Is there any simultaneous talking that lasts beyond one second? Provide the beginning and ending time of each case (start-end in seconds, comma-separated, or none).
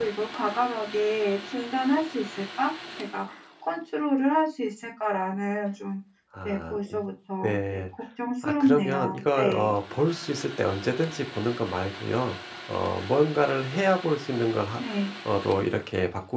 8.4-9.8